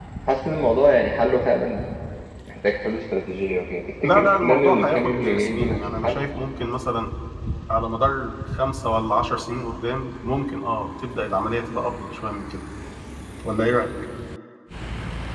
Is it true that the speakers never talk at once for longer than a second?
No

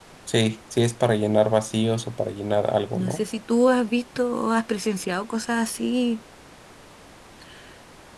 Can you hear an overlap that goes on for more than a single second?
No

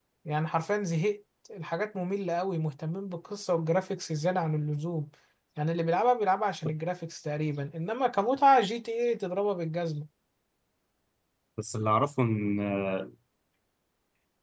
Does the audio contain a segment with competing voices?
No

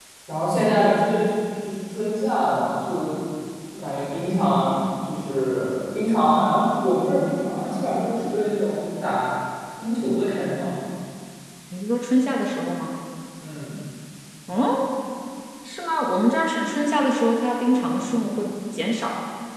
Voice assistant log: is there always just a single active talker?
Yes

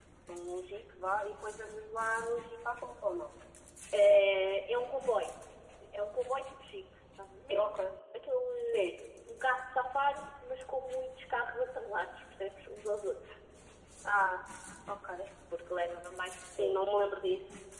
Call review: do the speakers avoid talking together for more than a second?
Yes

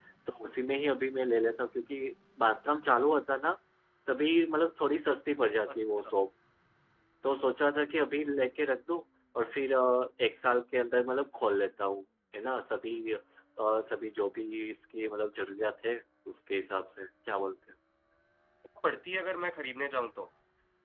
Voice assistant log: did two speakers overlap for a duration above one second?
No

